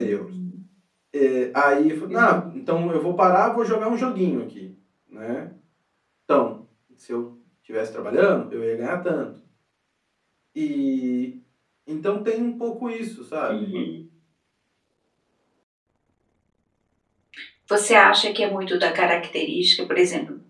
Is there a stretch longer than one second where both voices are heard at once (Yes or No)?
No